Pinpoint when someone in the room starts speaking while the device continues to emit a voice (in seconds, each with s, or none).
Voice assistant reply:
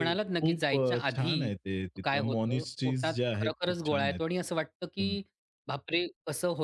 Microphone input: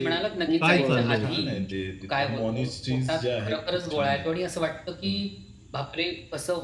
0.6 s